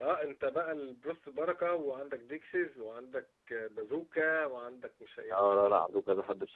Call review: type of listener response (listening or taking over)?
taking over